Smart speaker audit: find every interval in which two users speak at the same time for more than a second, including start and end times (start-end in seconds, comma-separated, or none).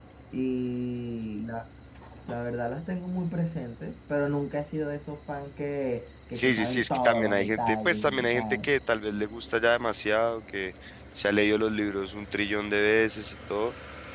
6.3-8.7